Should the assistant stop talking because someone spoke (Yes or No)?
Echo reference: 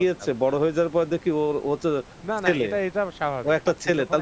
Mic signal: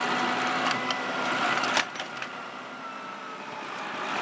No